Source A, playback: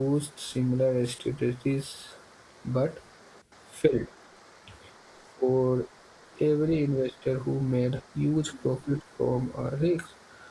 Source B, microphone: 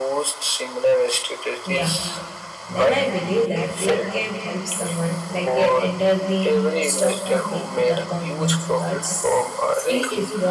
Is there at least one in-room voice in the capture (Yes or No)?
Yes